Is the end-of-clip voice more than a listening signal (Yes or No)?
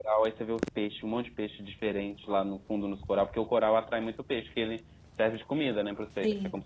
Yes